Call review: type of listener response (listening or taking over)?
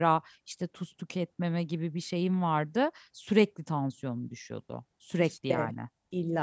taking over